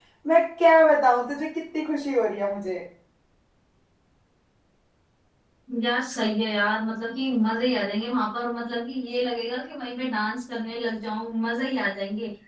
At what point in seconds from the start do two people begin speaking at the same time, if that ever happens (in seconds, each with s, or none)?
none